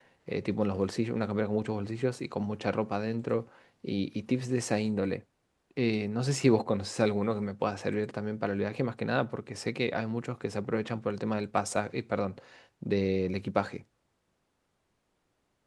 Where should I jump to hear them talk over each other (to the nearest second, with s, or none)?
none